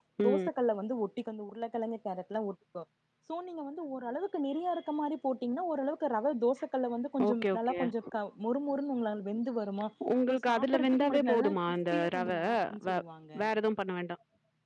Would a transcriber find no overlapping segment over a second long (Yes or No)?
No